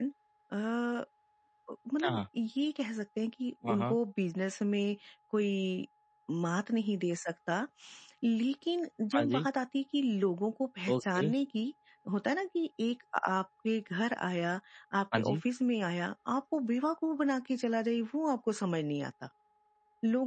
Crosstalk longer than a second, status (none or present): none